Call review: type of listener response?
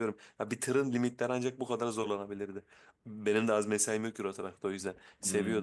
listening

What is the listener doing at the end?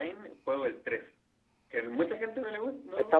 taking over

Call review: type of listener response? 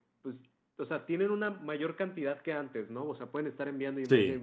listening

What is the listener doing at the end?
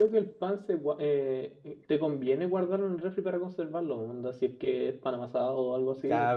taking over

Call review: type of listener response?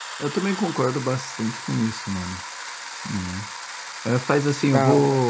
listening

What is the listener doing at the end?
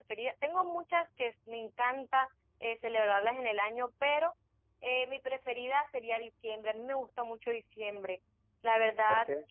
listening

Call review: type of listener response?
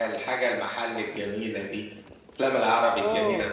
taking over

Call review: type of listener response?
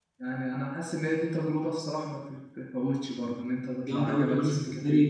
taking over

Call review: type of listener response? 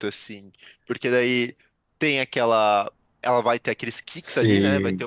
listening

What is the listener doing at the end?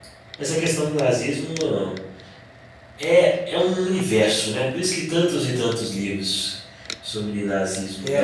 taking over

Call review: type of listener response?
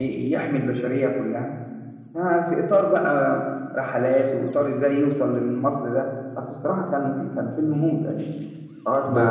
taking over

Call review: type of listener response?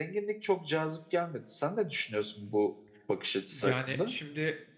taking over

